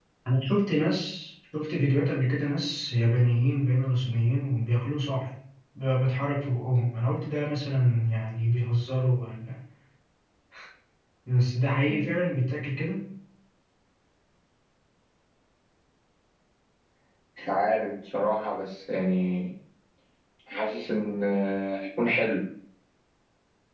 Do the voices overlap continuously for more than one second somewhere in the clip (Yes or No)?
No